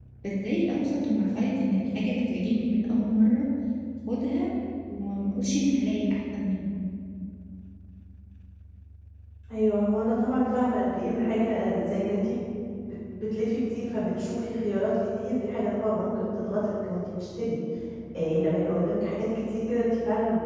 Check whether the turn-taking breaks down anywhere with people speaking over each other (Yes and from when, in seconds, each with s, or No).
No